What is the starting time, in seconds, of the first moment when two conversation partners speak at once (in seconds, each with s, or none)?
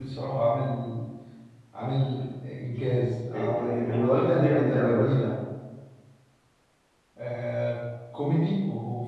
3.3 s